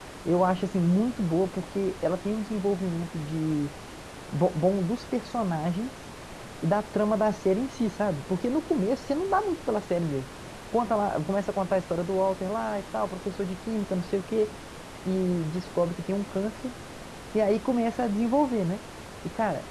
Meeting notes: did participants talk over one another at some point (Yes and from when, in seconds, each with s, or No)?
No